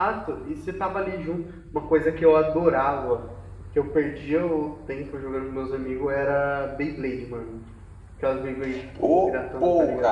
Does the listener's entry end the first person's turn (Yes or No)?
Yes